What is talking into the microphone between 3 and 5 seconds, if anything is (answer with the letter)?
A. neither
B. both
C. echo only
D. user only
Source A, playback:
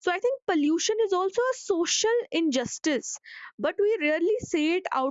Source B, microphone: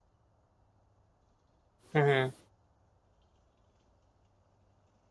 A